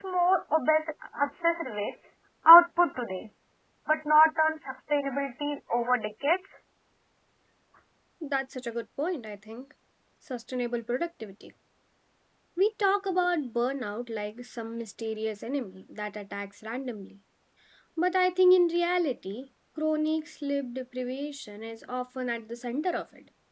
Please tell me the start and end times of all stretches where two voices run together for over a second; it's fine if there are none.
none

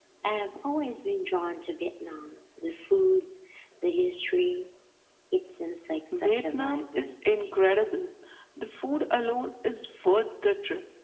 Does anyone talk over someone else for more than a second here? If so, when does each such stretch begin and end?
6.1-7.8

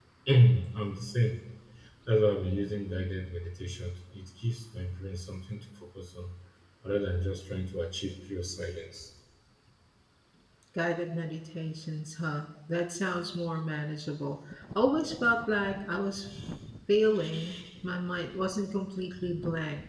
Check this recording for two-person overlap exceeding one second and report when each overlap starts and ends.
none

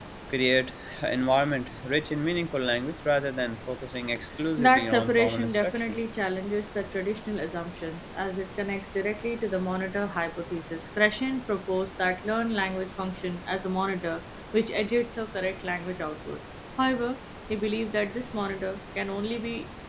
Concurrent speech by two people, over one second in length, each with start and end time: 4.6-6.0

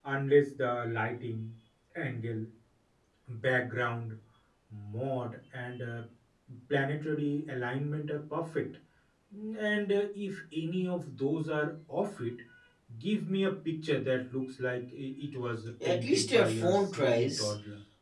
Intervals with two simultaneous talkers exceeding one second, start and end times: 15.8-17.5

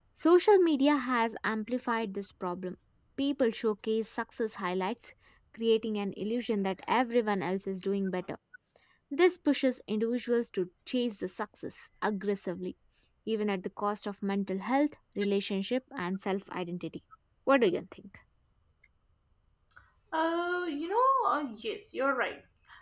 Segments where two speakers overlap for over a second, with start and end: none

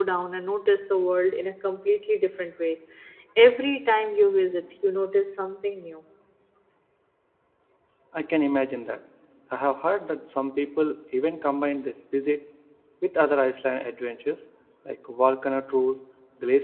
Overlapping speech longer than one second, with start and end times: none

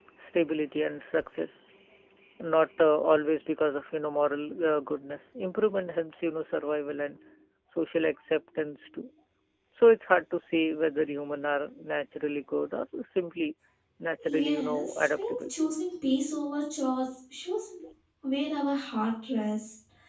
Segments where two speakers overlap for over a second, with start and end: 14.2-15.5

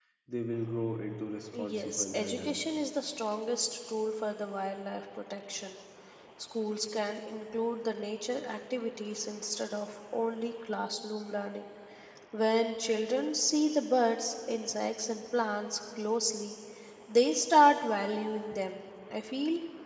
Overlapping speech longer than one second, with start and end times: 1.6-2.9

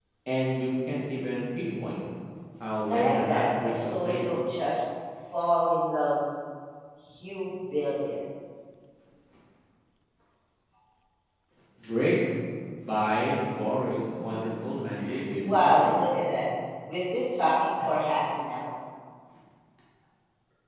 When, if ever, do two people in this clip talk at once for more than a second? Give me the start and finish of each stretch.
2.9-4.2

